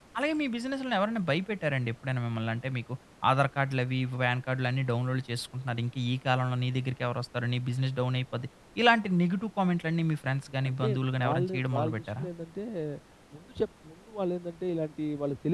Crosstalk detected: Yes, from 10.6 s

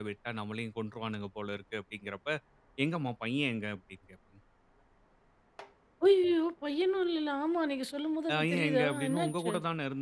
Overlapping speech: Yes, from 8.3 s

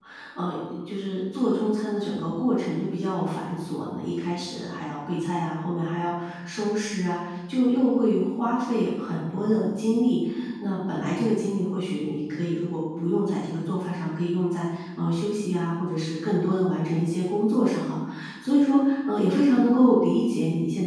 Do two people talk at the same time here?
No

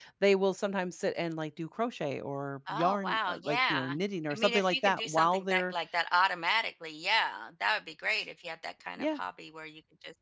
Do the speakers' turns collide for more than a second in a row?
Yes, from 2.7 s

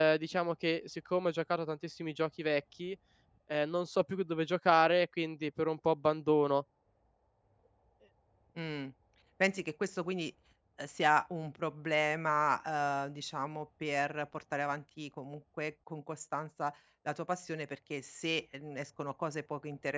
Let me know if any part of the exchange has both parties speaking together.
No

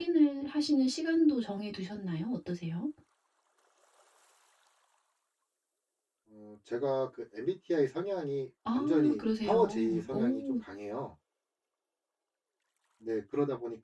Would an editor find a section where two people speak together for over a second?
Yes, from 8.7 s

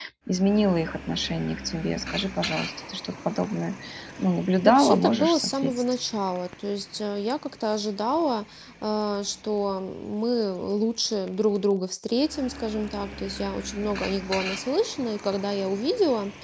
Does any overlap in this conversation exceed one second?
Yes, from 4.6 s

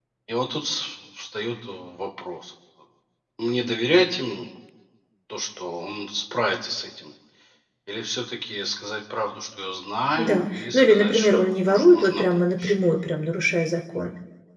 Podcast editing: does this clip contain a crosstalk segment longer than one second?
Yes, from 10.2 s

